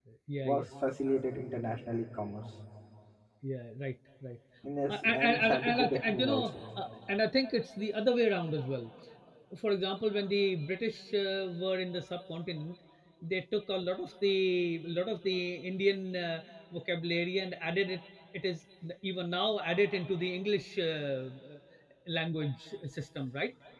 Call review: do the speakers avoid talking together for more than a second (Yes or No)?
No